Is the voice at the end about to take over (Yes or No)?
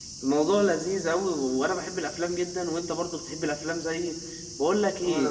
No